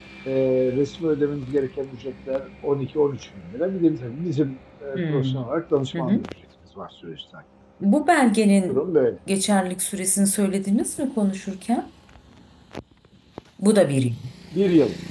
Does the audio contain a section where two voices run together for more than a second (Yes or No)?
No